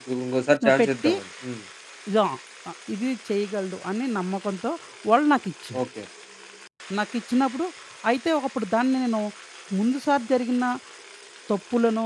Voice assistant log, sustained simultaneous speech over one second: none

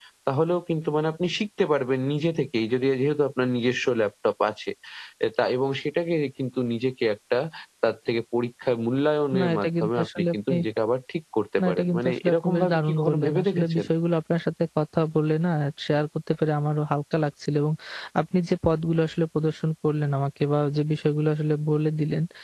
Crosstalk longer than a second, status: present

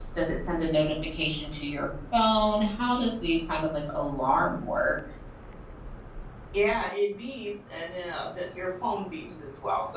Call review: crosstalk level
none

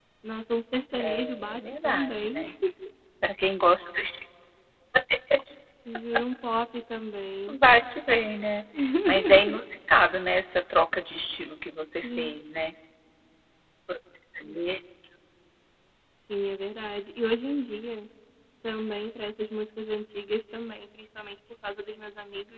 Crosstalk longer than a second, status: present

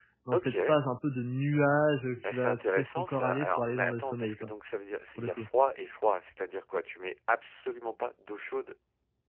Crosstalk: present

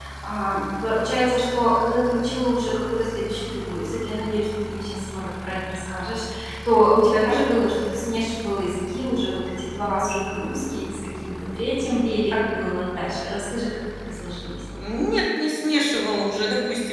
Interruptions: none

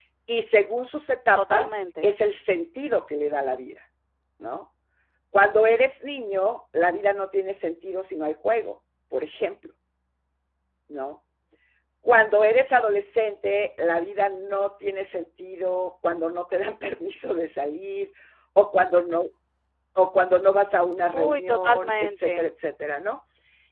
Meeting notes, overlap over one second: present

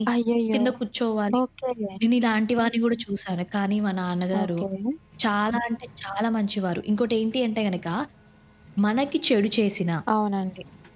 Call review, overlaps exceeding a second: none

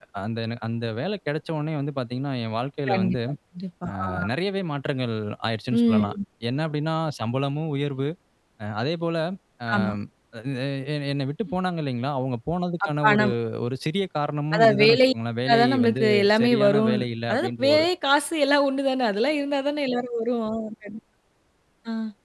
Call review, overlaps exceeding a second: present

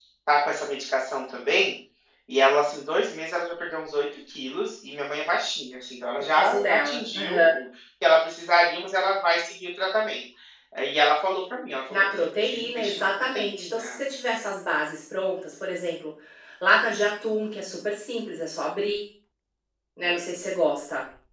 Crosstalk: present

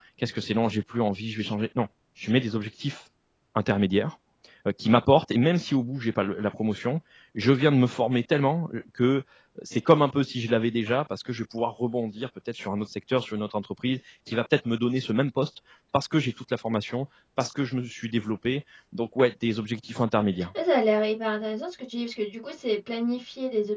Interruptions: none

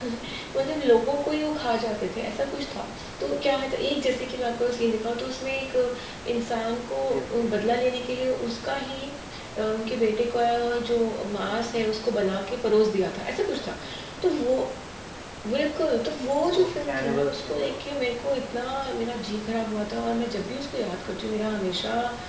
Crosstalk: present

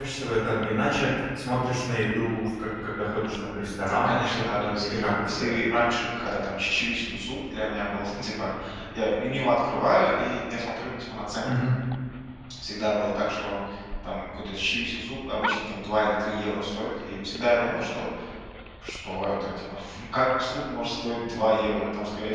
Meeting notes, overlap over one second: present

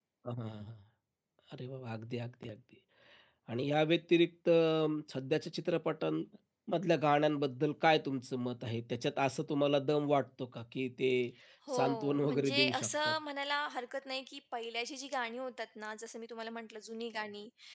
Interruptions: present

